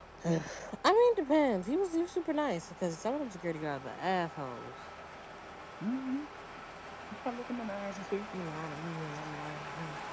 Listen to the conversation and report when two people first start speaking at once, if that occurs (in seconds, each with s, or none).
none